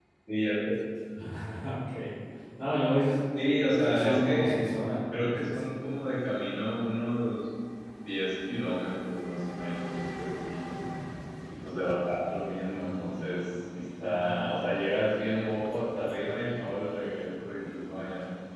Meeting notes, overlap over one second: present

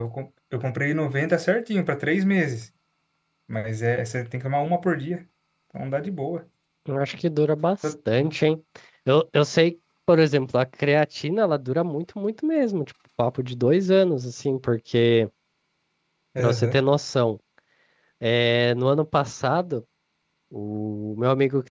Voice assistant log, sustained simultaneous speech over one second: none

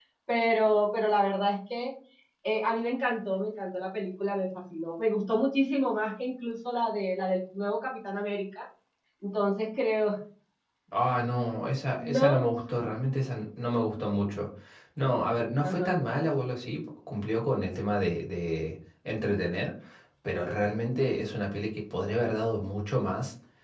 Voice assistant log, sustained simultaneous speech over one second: none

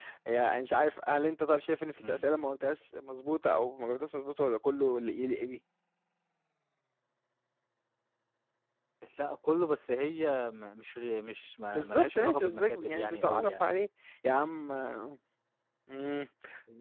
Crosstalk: present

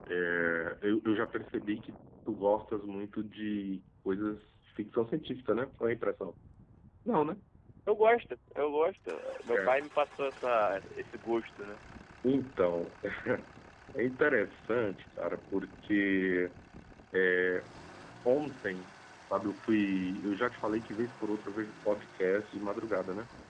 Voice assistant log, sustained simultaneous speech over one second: none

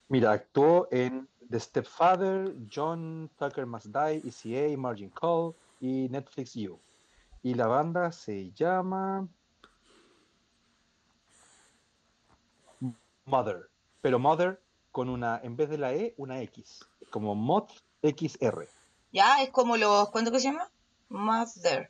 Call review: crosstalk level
none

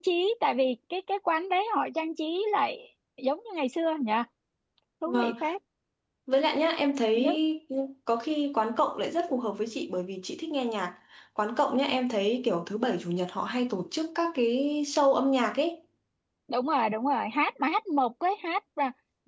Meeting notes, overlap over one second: none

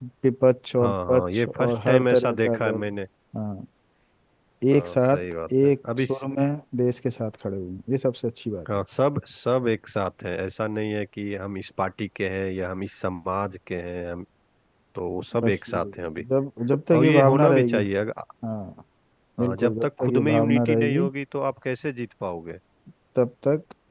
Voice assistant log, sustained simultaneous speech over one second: present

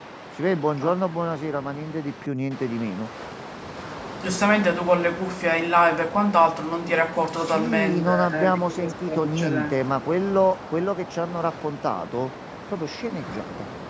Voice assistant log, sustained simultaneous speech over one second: present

